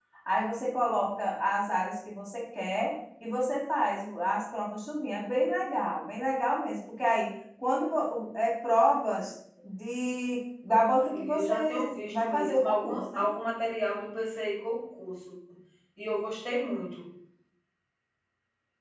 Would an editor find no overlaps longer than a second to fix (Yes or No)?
No